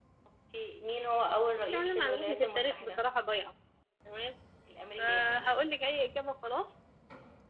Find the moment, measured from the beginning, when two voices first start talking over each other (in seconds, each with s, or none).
1.6 s